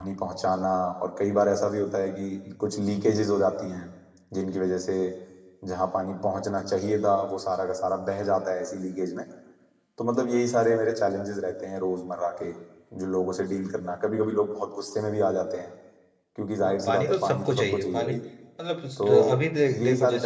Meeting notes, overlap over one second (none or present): present